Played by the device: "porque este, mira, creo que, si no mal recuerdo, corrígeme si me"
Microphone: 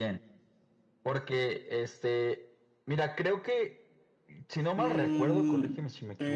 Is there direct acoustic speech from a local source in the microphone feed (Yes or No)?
Yes